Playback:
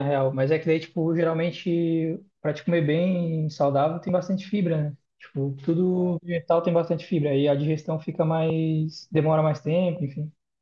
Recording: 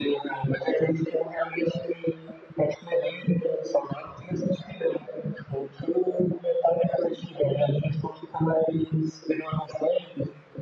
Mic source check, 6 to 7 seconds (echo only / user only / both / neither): echo only